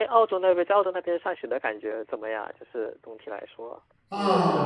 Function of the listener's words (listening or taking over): taking over